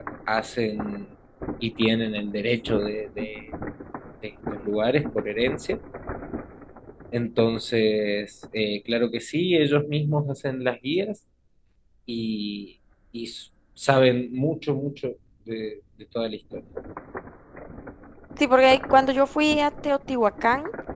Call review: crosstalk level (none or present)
none